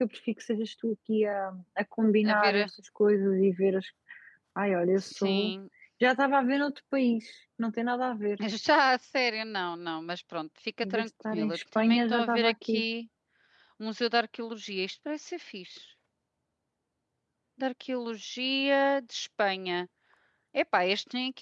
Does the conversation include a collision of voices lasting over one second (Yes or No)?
Yes